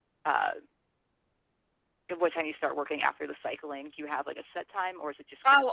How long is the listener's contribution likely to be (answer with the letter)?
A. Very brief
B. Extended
B